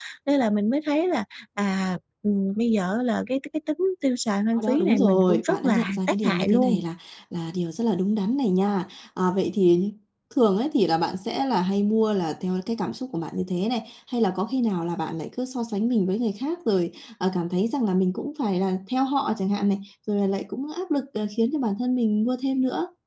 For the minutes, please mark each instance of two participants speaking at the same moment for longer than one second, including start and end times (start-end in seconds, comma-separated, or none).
4.6-6.8